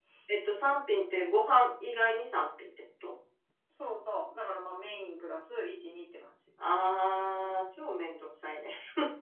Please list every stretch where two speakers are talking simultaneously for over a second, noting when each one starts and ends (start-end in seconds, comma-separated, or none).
none